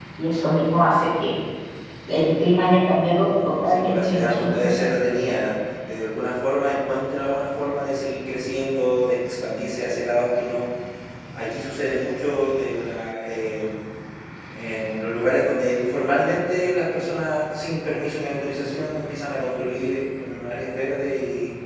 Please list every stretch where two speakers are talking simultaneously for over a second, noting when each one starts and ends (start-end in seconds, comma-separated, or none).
3.7-4.9